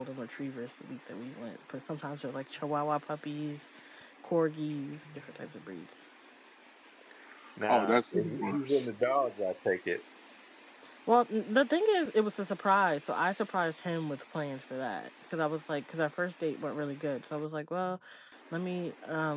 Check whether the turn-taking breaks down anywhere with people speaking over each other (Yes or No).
Yes